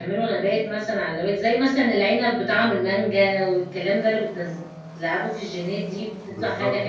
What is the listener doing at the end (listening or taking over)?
listening